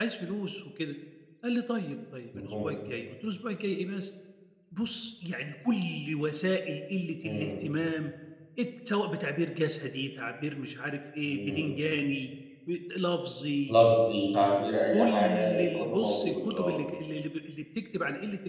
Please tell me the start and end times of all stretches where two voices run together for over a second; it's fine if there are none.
14.9-16.8

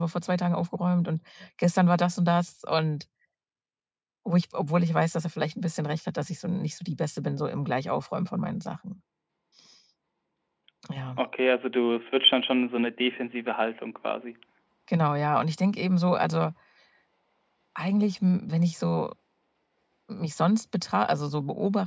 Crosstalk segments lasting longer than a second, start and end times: none

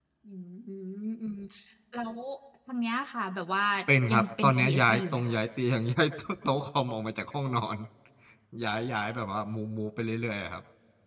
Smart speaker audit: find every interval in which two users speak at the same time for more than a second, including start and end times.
4.1-5.3

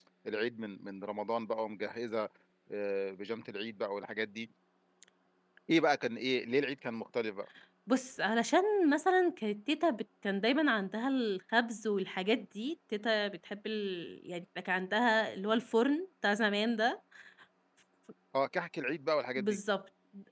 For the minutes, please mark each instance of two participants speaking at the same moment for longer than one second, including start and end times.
none

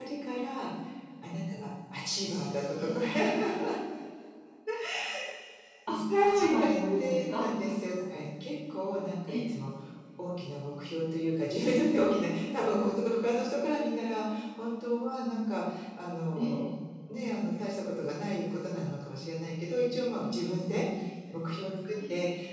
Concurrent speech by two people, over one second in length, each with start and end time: 5.9-7.5

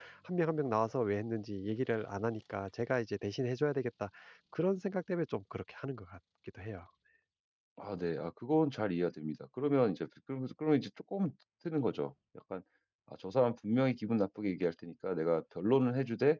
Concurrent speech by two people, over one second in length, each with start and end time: none

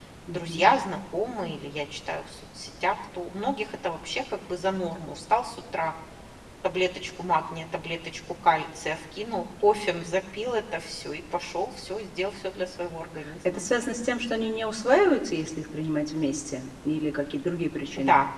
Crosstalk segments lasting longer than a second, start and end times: none

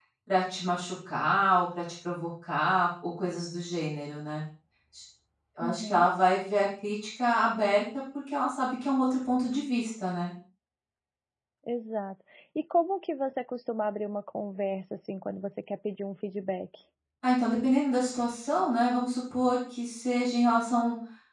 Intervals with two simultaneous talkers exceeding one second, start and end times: none

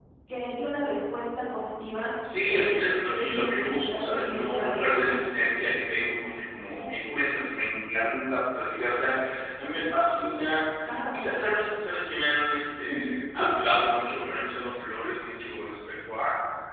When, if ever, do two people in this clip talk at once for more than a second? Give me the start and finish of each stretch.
2.4-5.2

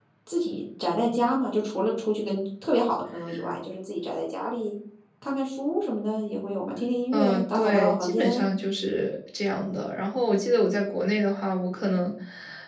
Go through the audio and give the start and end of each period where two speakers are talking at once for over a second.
7.1-8.4

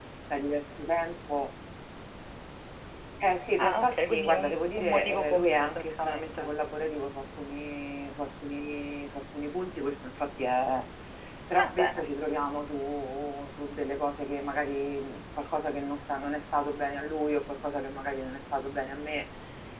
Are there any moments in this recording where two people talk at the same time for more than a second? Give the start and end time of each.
3.6-6.5

